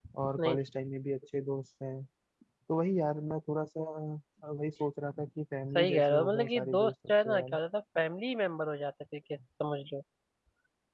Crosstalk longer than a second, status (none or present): present